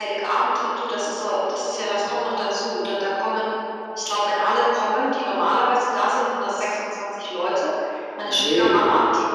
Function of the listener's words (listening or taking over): listening